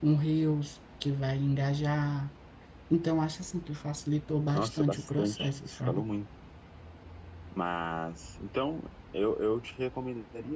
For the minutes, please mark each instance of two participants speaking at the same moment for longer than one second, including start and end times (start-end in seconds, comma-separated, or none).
4.5-6.0